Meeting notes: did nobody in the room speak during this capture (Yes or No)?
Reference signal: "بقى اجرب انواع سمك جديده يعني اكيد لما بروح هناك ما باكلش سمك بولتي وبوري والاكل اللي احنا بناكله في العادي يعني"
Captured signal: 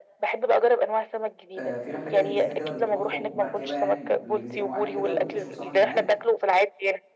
No